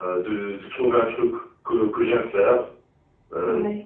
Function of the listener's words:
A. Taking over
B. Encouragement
B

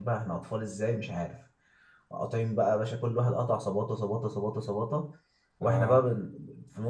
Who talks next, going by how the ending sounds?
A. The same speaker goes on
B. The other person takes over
A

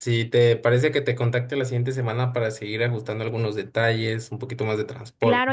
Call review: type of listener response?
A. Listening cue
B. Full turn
B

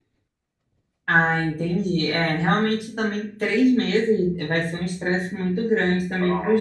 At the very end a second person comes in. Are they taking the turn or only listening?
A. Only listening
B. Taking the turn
A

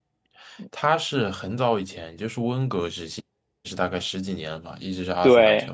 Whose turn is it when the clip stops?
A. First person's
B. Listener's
B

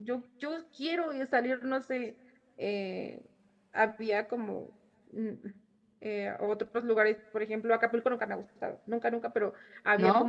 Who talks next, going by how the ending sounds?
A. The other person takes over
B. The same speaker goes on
B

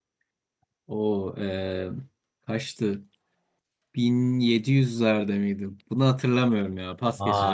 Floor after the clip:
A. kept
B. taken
B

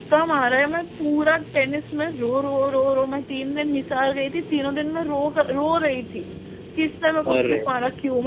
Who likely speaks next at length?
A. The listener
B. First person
B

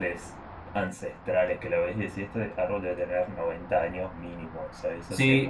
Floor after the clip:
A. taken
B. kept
A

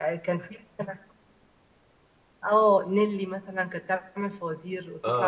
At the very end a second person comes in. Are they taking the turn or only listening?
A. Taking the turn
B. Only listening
B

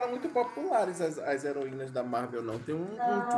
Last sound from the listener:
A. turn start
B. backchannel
A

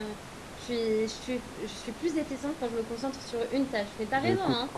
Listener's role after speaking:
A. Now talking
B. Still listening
A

